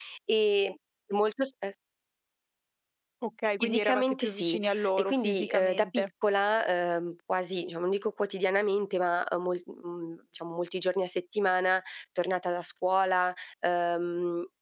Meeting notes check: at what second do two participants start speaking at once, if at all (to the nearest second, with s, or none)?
4 s